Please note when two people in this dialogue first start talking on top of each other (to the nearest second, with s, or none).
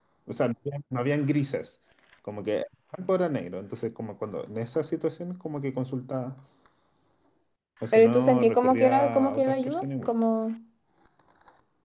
8 s